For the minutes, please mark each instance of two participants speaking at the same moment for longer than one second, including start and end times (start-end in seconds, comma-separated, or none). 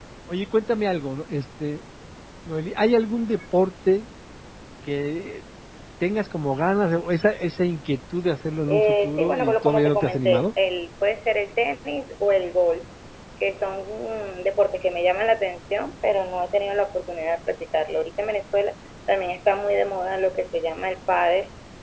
8.7-10.5